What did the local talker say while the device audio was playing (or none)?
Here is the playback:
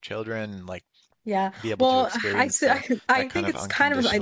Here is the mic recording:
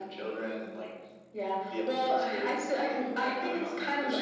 none